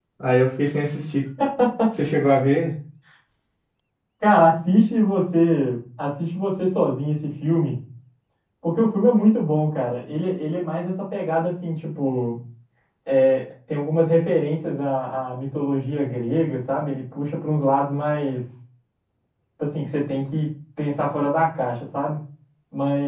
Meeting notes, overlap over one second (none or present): none